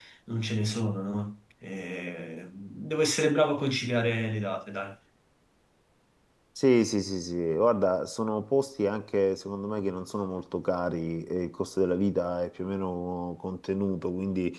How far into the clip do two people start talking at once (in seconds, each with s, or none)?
none